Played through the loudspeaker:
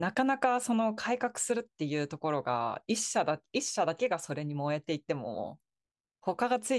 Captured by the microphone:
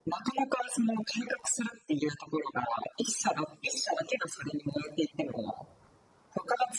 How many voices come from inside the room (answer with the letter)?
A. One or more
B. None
B